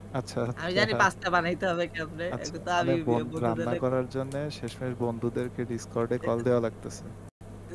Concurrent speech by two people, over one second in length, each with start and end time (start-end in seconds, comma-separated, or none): 2.3-3.8